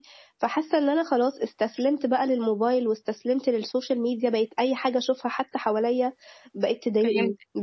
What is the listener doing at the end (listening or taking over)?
listening